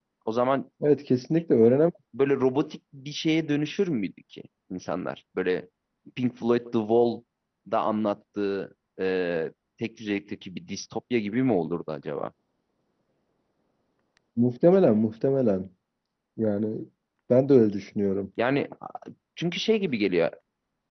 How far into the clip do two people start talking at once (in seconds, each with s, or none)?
none